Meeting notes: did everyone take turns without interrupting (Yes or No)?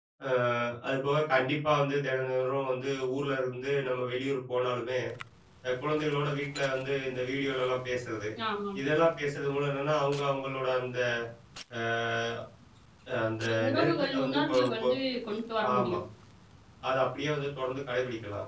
No